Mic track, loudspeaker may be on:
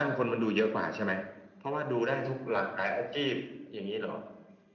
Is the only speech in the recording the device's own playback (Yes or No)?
Yes